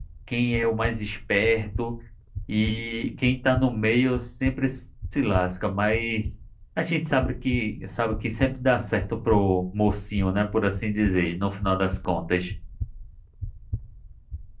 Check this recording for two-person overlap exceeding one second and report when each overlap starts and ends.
none

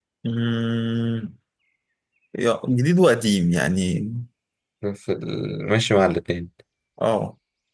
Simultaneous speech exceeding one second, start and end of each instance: none

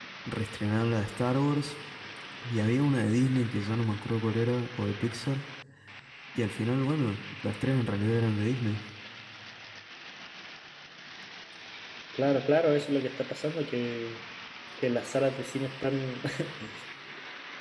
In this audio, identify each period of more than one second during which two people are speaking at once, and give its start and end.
none

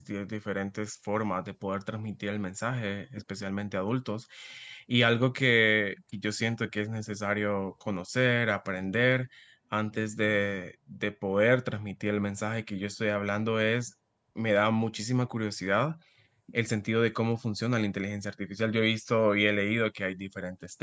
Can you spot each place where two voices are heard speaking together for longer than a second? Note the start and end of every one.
none

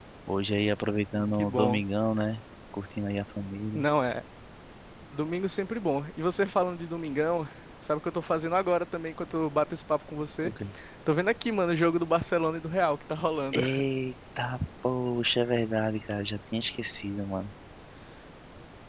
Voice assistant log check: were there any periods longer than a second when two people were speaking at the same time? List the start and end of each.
none

